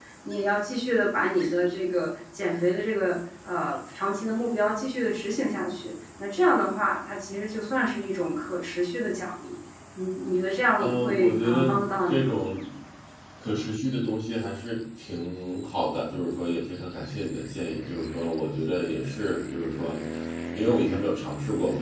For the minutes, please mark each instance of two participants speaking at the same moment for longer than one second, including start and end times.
10.8-12.3

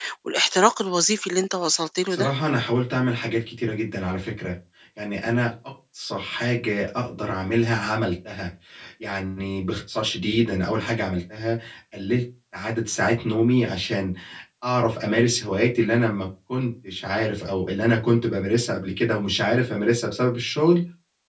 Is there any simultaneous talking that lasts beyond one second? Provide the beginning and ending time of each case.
none

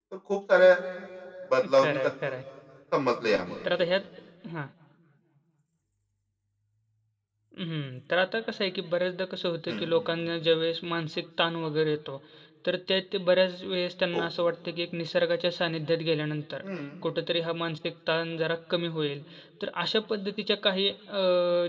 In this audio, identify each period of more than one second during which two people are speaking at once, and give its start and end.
none

